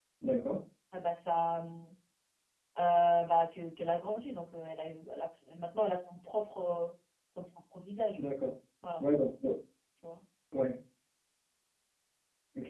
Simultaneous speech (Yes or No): No